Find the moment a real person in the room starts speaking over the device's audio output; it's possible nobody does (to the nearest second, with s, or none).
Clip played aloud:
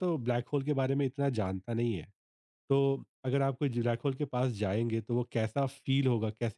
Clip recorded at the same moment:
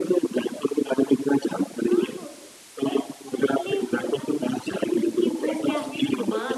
2 s